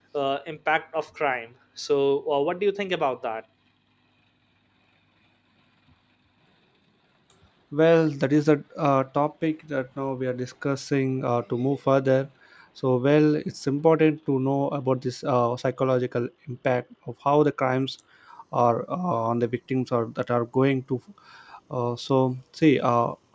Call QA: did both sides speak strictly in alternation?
Yes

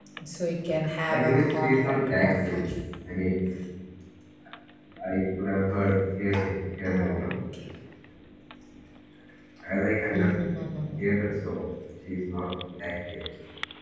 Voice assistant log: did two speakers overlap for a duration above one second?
Yes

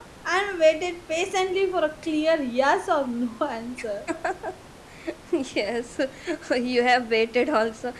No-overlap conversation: Yes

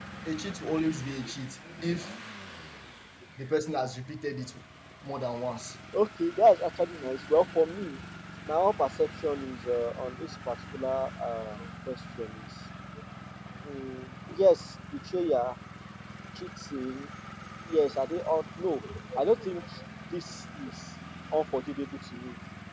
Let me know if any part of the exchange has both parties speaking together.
No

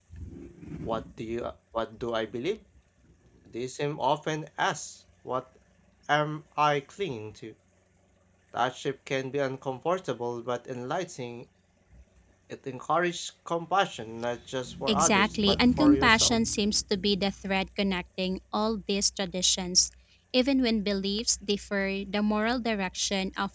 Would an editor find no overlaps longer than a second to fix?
No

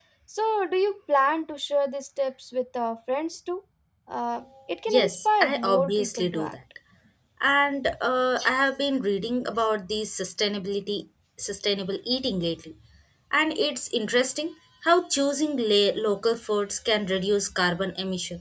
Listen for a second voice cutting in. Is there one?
Yes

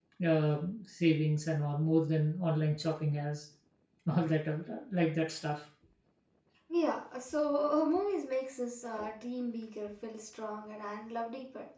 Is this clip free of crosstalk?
Yes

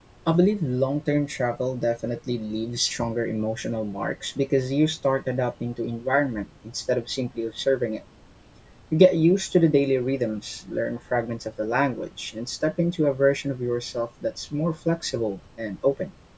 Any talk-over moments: No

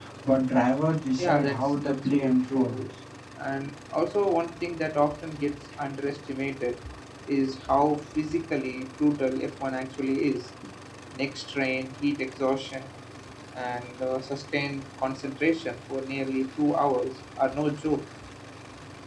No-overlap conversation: No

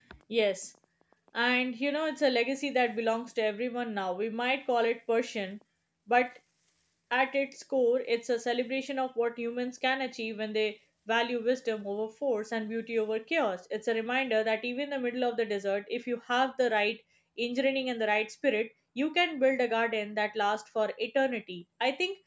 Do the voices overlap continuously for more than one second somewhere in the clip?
No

